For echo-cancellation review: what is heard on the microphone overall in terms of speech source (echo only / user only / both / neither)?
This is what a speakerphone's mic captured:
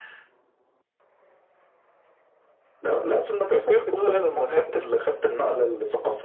both